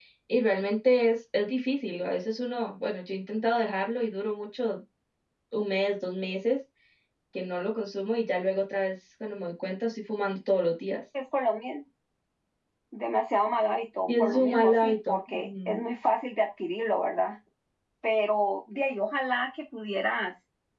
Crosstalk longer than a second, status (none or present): present